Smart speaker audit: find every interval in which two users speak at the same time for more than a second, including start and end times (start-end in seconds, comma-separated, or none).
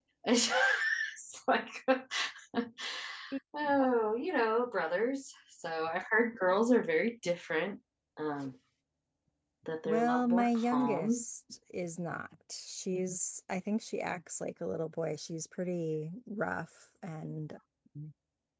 9.8-11.2